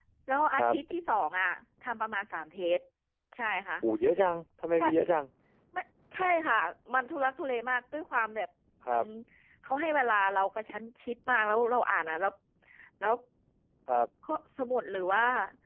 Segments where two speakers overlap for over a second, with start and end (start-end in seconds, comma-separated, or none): none